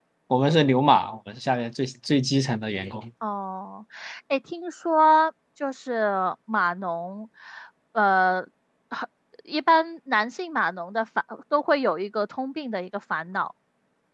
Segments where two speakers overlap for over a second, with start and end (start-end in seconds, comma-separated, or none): none